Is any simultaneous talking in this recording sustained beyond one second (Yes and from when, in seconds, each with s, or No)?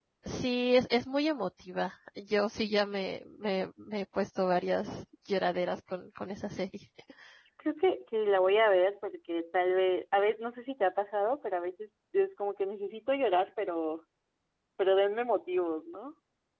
No